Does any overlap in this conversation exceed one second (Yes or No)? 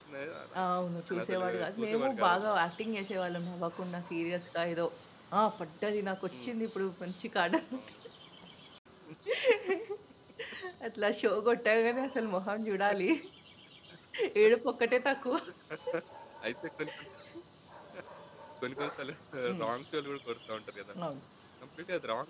Yes